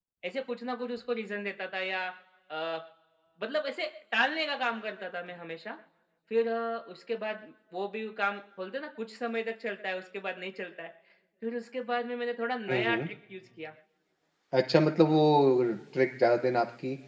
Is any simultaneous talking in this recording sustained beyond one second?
No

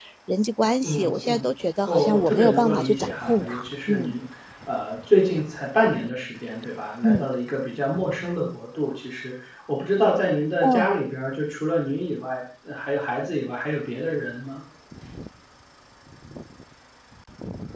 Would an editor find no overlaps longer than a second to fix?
No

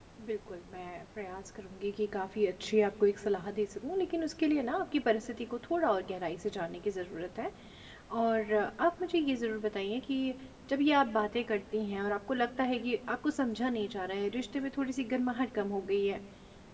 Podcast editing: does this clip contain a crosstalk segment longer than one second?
No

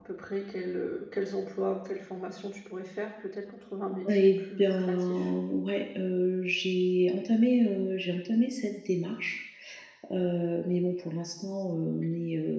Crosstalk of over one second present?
Yes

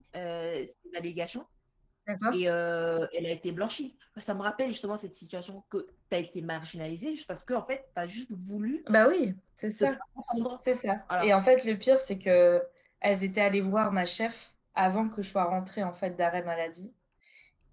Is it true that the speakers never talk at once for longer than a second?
Yes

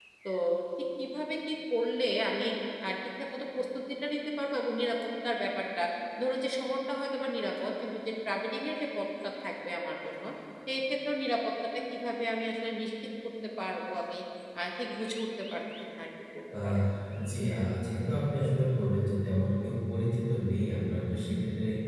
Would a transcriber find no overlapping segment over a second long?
Yes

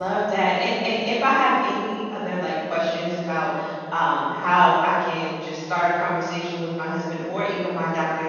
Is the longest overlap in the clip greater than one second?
No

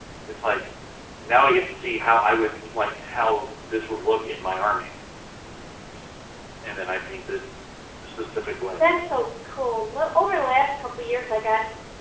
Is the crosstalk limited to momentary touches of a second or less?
Yes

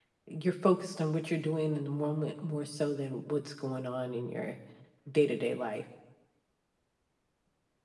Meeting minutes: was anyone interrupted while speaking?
No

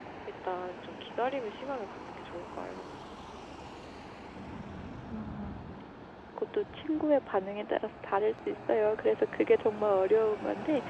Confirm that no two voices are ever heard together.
Yes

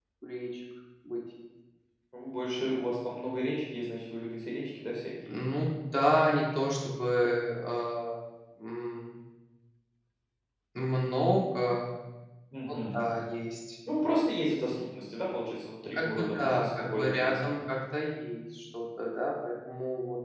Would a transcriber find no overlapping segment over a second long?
No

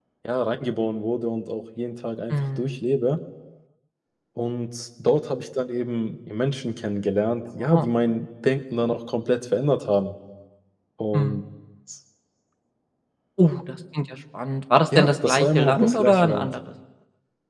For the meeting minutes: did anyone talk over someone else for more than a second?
Yes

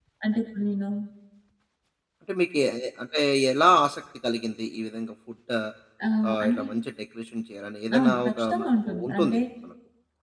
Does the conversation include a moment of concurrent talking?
Yes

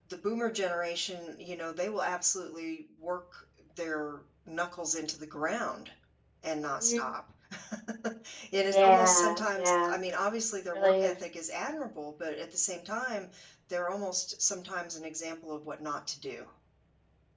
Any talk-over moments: Yes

